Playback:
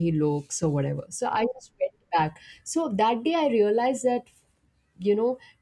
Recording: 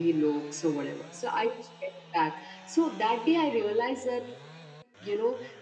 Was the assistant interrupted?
No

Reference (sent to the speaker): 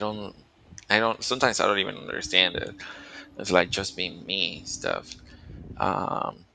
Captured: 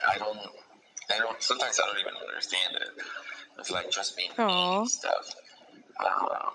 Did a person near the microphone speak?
Yes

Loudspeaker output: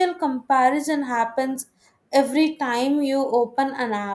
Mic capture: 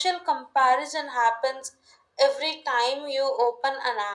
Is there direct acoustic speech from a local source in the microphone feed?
No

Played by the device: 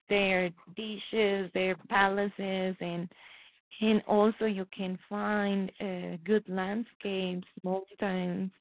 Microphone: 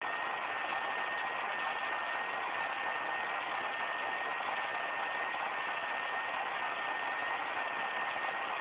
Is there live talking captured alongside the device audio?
No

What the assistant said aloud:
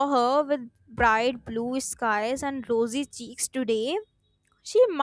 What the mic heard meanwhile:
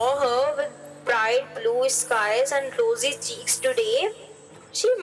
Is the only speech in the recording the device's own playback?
Yes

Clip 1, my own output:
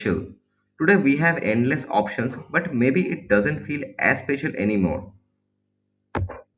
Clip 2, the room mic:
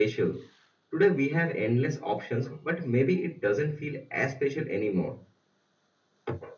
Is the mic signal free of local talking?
Yes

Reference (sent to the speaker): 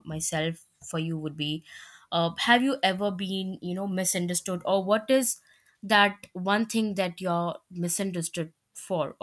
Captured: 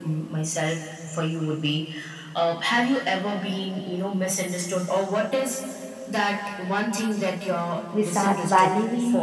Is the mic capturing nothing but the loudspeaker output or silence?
No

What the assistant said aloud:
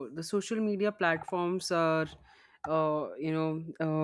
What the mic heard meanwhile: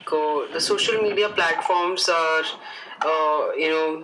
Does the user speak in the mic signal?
No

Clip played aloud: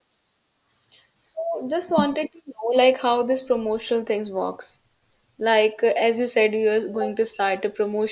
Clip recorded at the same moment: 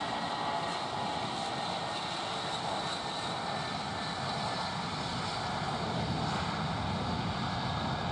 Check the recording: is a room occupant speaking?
No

